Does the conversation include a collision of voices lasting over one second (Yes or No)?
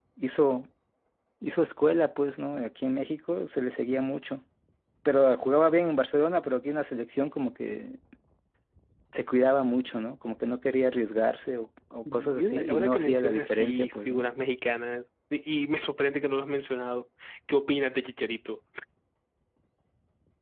Yes